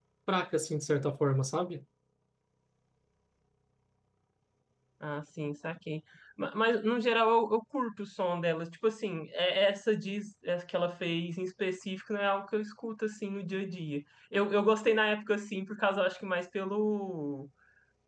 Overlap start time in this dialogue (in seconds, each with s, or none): none